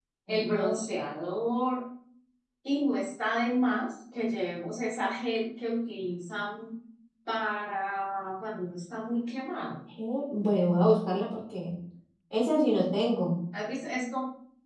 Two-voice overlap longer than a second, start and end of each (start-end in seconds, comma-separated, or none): none